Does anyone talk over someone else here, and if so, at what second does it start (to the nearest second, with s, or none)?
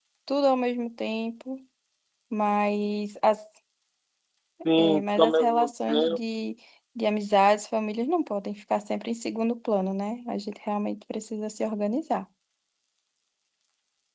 5 s